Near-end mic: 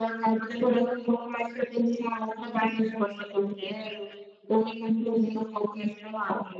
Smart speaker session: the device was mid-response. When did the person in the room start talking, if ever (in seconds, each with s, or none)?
none